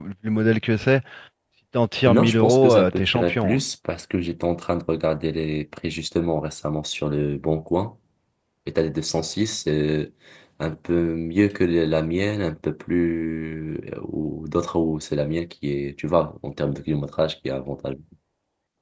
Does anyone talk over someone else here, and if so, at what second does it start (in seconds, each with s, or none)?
2.1 s